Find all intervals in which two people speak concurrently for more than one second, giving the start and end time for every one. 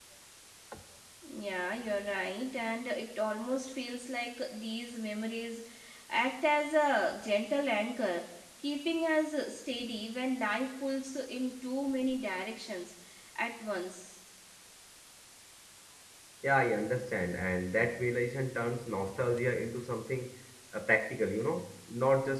none

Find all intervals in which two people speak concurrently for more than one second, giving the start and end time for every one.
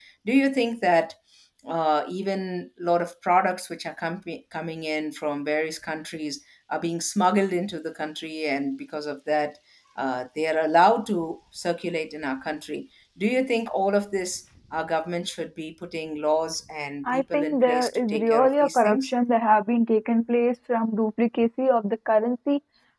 17.1-19.1

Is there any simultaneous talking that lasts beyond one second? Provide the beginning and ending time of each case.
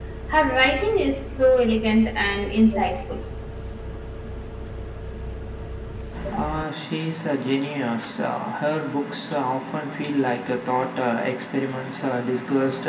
none

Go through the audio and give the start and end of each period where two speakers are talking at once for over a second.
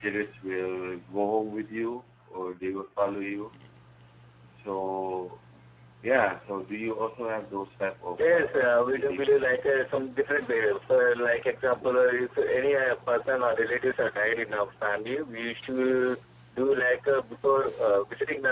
8.2-9.4

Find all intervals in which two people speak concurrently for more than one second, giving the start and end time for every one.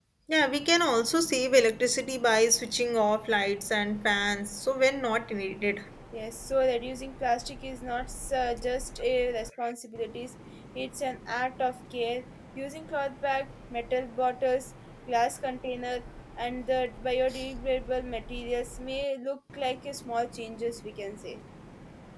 none

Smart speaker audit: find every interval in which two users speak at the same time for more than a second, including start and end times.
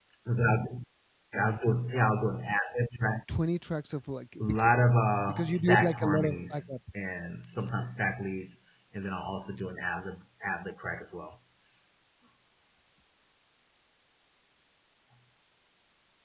5.3-6.7

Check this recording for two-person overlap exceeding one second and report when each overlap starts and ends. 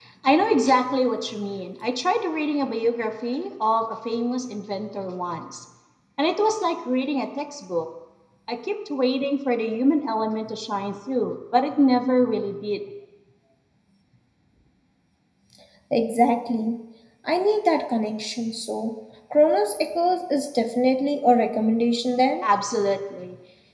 none

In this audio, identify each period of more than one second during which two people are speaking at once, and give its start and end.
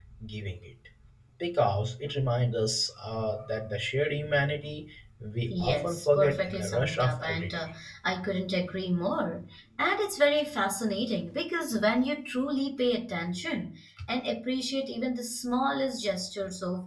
5.5-7.6

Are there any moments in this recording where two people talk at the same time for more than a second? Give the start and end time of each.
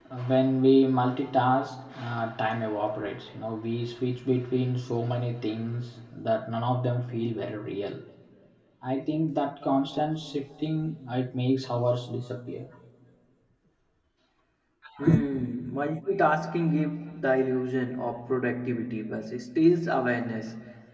none

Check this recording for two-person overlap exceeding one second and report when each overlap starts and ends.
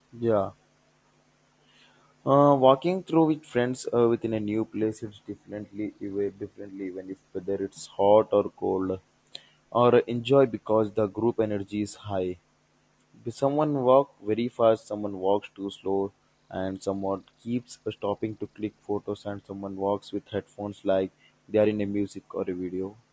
none

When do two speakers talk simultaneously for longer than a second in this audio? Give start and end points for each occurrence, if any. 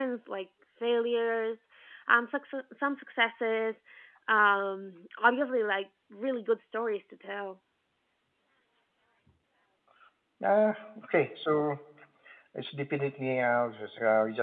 none

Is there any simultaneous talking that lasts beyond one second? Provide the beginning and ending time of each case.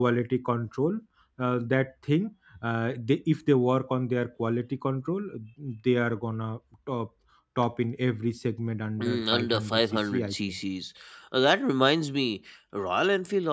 9.0-10.6

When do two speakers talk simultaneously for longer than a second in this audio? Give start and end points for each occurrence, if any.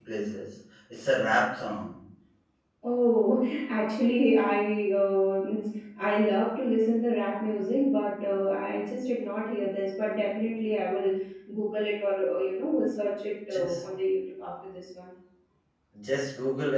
none

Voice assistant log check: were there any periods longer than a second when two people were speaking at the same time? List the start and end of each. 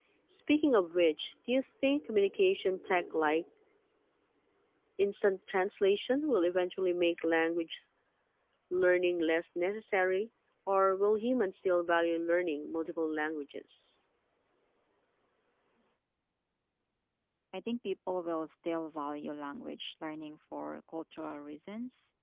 none

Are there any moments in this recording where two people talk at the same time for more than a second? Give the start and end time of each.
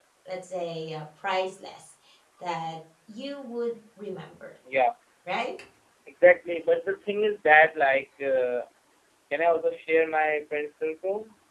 none

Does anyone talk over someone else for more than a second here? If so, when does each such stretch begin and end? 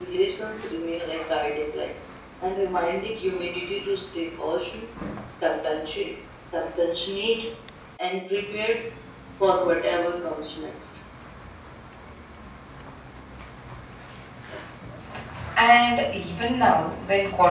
none

